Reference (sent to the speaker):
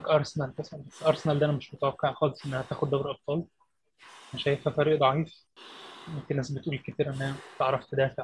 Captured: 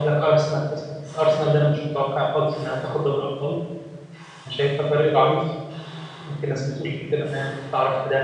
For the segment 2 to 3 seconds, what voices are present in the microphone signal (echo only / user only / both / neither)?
echo only